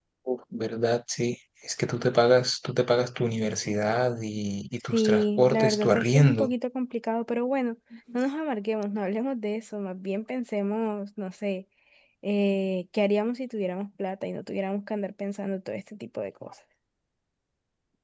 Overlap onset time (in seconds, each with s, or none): 4.9 s